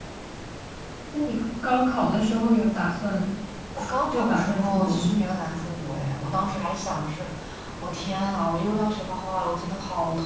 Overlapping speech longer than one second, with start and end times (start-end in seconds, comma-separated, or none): 3.8-5.2